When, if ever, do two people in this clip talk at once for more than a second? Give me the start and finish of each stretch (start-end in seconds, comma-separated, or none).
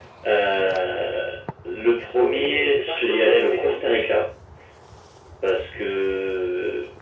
2.2-3.8